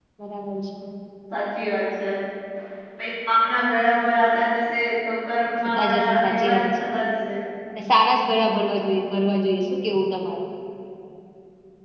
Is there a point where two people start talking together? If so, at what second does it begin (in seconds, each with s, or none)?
5.7 s